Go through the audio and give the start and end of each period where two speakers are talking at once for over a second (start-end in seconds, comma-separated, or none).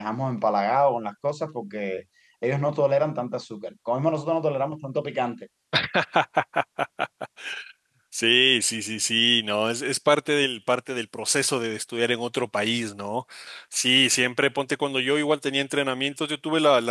none